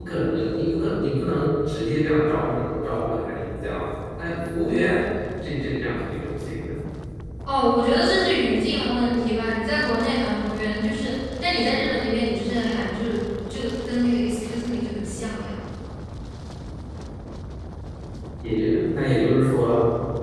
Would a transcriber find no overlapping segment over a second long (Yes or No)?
Yes